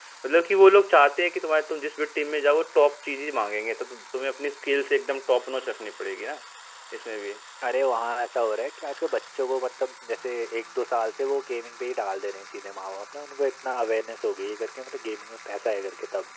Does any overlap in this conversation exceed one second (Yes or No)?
No